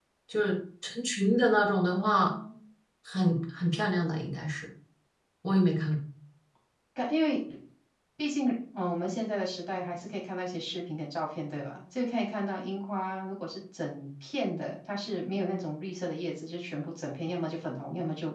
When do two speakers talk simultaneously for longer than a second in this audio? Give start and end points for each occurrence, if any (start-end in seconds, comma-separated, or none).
none